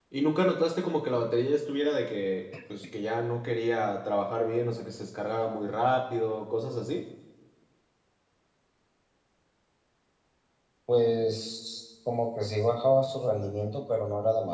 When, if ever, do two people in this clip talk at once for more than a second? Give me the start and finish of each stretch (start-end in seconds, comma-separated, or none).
none